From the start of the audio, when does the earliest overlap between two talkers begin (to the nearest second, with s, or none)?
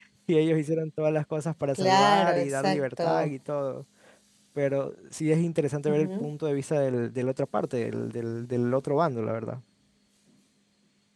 2 s